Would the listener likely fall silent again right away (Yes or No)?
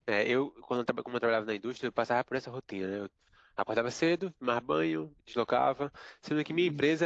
Yes